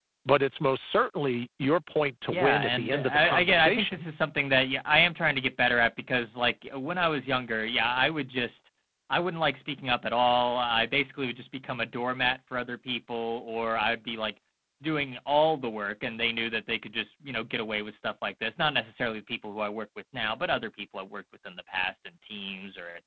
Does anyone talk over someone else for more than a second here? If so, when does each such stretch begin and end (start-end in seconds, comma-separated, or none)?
2.3-4.0